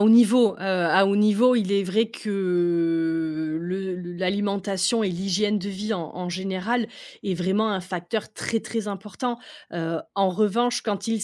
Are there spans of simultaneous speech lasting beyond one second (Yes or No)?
No